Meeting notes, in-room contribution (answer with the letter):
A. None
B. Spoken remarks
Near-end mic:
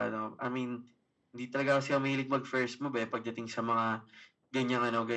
A